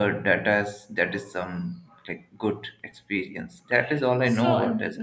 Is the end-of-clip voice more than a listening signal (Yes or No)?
Yes